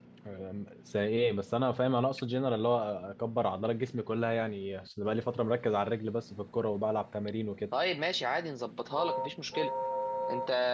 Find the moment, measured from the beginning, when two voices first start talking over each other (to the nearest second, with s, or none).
none